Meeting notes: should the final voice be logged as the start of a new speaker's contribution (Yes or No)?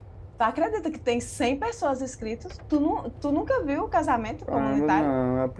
Yes